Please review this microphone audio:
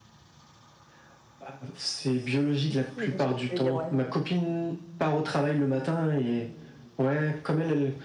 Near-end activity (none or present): present